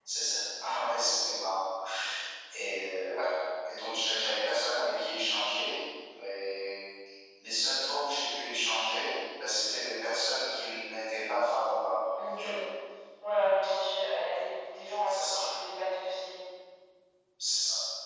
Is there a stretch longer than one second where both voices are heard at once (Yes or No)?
No